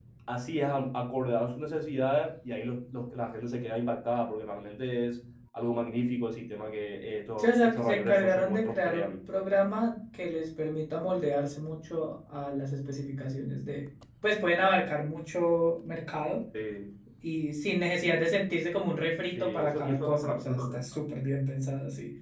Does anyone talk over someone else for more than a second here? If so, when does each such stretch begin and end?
7.4-9.1, 19.4-21.0

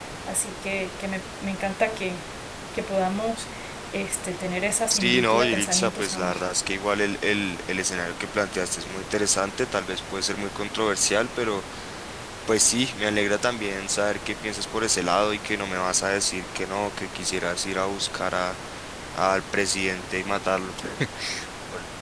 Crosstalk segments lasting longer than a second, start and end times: 4.9-6.3

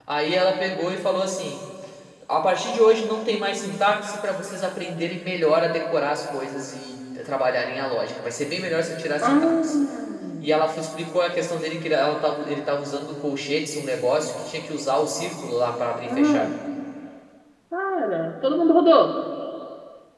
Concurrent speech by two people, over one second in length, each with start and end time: none

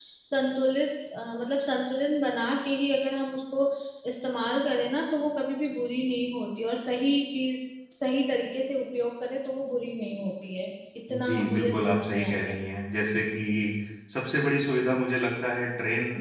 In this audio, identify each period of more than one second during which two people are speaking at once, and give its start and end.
11.2-12.6

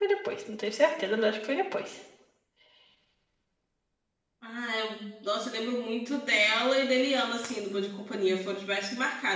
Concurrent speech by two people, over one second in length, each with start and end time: none

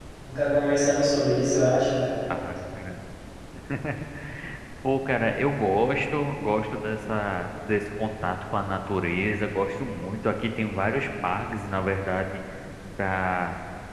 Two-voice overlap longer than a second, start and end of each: none

